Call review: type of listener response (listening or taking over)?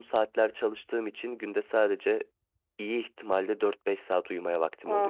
taking over